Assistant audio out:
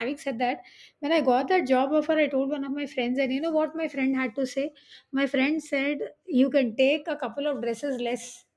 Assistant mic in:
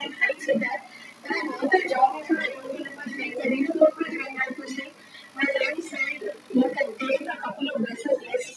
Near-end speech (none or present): none